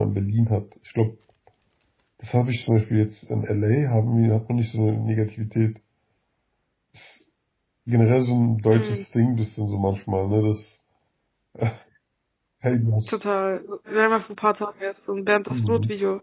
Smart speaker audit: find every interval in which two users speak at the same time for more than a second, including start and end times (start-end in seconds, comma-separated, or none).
none